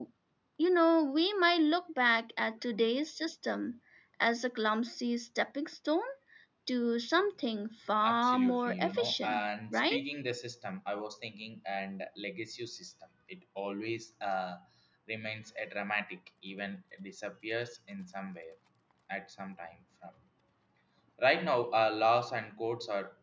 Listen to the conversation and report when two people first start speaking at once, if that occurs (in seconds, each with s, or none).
8.0 s